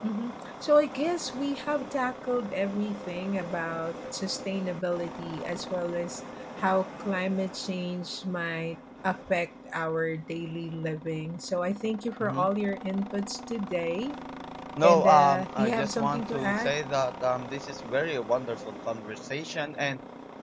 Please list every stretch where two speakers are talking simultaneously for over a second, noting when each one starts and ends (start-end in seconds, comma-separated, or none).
14.8-16.7